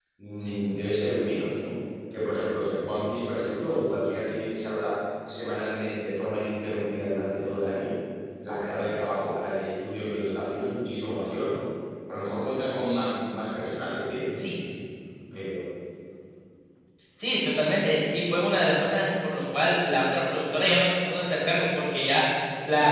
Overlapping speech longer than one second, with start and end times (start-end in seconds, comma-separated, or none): none